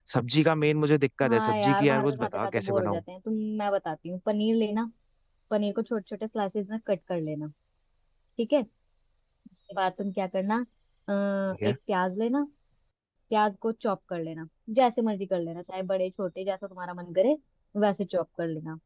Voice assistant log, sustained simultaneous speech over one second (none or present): present